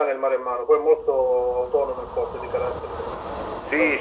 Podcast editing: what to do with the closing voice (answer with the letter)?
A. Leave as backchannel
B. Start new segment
B